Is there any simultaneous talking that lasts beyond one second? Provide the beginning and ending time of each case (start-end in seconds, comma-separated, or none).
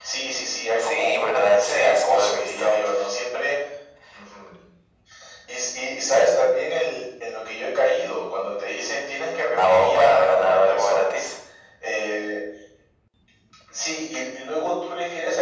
0.8-2.8, 9.6-11.3